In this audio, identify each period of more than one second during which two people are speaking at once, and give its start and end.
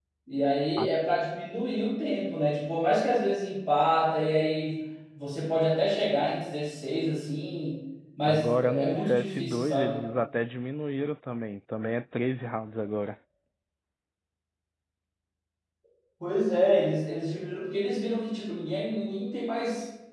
8.3-10.0

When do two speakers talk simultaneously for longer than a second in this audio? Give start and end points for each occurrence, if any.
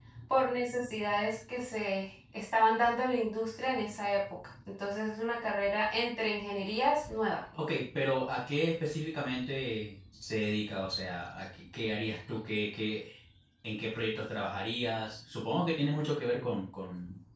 none

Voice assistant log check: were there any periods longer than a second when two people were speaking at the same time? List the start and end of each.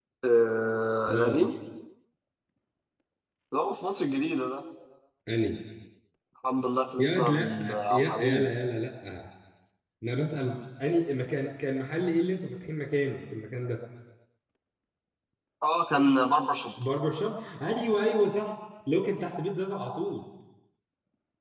7.0-8.5

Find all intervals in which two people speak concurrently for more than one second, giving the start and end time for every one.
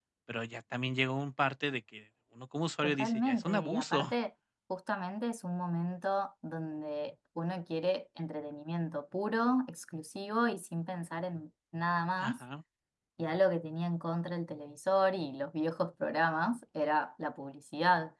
2.8-4.1

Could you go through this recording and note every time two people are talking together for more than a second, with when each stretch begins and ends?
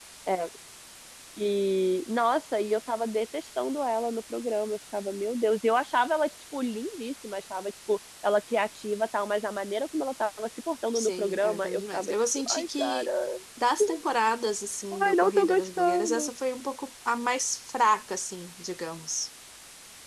11.0-13.1, 15.0-16.3

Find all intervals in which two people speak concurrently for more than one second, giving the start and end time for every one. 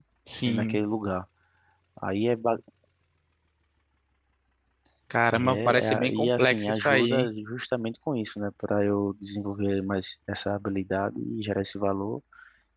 5.3-7.3

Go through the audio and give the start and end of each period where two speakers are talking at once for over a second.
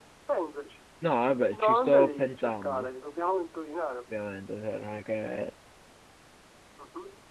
1.5-2.9

